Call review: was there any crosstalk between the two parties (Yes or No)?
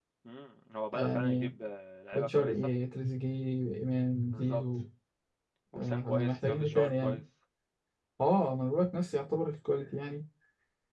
Yes